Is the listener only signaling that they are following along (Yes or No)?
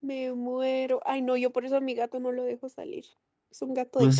No